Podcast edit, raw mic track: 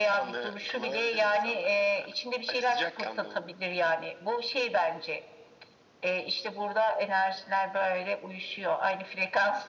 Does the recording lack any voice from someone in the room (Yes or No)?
Yes